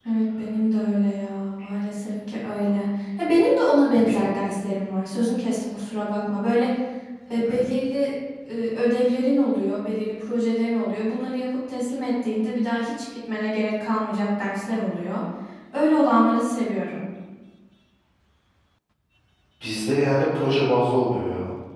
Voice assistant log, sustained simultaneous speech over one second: none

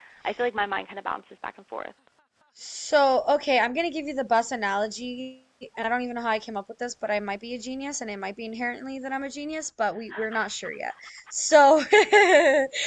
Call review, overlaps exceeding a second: none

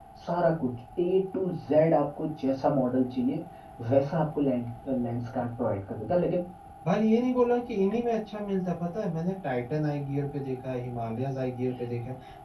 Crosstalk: none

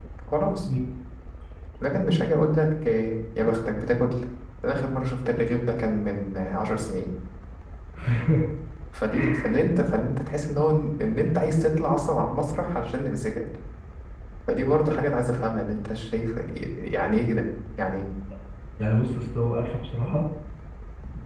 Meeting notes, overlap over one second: none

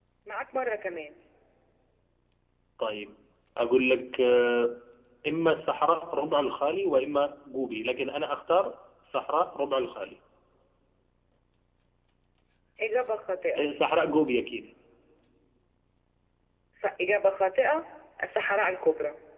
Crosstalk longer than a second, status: none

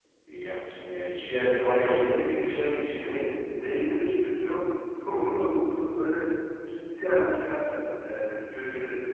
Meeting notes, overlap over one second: present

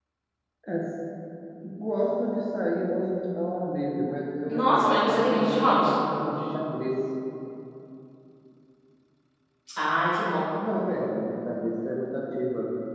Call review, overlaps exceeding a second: present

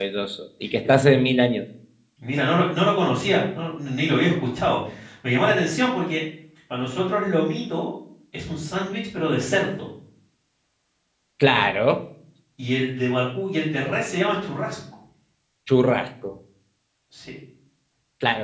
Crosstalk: none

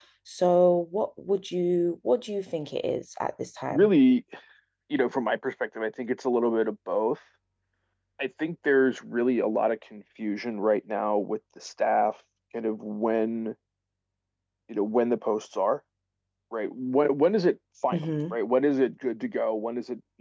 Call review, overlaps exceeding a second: none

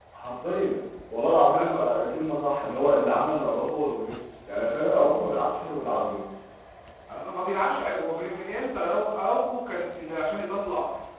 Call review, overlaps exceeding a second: none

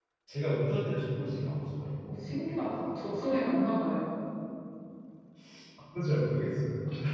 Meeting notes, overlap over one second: none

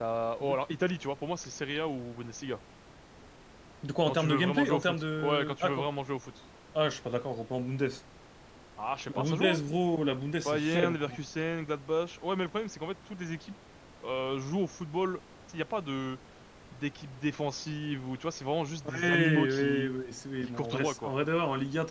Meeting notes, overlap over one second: present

